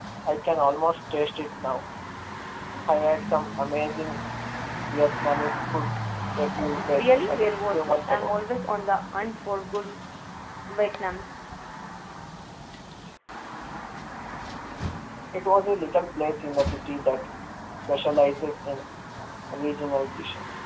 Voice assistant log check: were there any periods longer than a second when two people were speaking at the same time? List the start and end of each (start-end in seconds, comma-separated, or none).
7.0-8.3